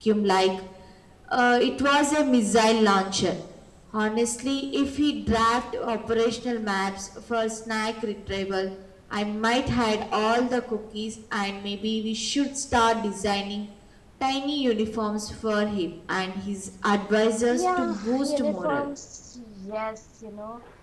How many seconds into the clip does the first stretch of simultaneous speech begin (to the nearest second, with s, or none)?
18 s